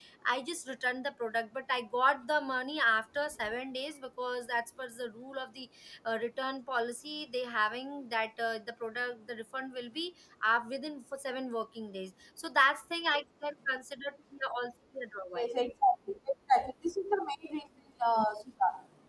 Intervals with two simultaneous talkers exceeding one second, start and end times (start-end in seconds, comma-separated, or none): none